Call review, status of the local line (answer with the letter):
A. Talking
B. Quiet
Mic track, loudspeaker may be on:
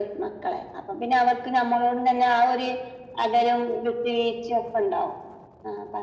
B